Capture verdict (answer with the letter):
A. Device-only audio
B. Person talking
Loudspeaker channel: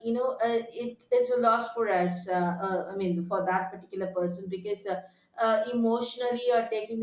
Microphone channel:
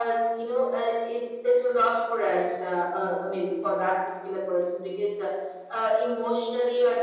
A